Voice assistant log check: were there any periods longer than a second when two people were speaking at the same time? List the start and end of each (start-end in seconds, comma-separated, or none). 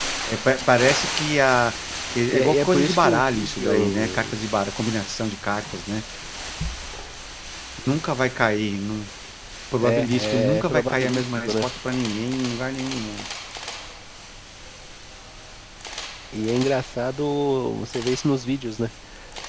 2.3-4.4, 9.8-11.7